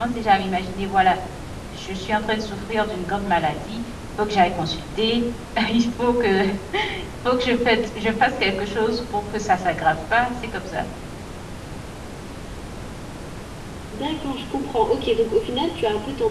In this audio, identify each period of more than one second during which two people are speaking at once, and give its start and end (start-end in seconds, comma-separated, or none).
none